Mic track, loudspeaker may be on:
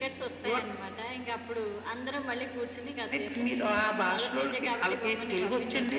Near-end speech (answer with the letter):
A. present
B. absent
B